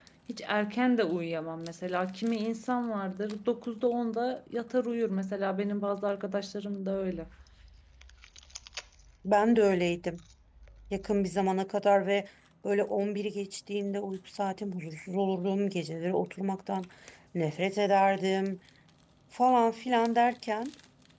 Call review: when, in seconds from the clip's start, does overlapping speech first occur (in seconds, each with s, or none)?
none